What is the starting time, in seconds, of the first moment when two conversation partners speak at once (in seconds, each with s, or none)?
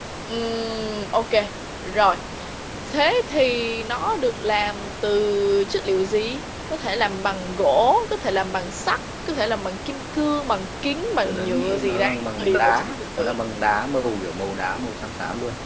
11.2 s